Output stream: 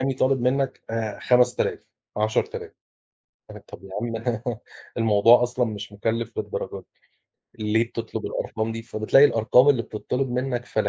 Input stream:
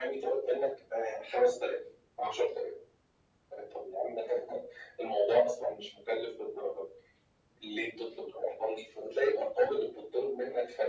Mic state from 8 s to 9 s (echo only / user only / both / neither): echo only